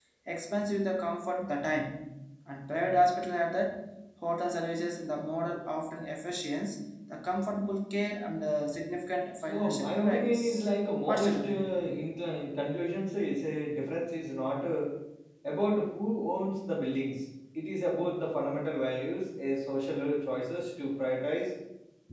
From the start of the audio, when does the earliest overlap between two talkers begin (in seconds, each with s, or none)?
9.5 s